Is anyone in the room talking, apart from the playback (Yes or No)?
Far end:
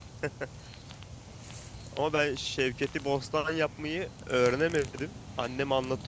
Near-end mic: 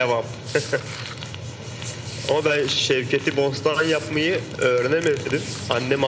No